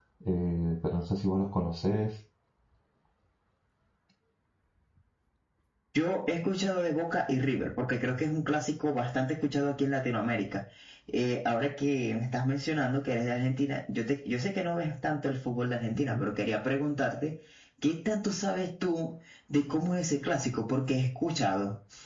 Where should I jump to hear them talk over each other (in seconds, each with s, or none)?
none